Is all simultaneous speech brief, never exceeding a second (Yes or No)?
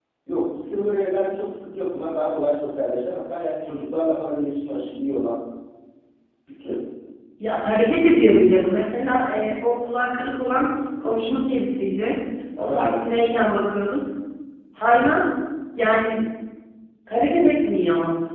Yes